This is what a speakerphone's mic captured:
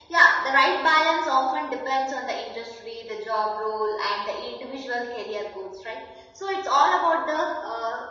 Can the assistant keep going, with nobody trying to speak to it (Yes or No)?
Yes